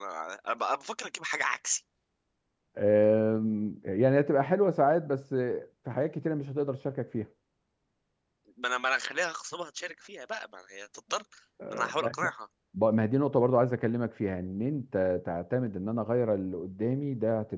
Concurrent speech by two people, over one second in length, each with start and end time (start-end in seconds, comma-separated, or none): none